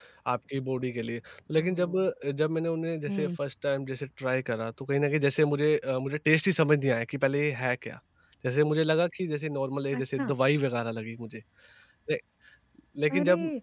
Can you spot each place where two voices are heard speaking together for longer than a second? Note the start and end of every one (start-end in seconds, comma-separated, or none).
none